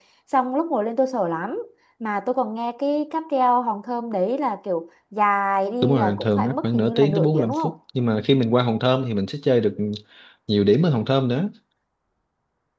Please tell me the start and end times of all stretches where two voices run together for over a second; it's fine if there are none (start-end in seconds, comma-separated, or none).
5.8-7.7